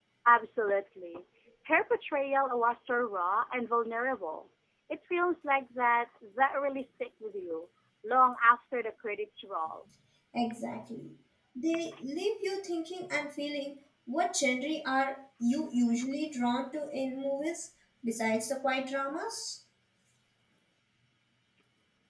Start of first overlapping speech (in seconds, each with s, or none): none